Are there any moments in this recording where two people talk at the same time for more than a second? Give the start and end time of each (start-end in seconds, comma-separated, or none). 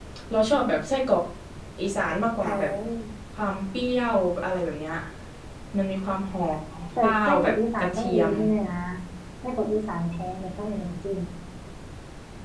7.0-8.3